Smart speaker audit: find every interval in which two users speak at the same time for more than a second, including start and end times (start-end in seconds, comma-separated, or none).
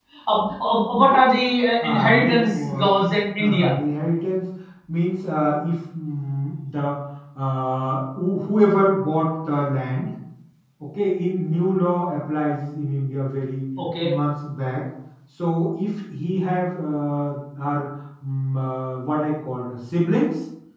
1.8-3.7